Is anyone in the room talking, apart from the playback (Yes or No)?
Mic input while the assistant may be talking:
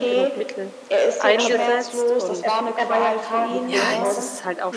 Yes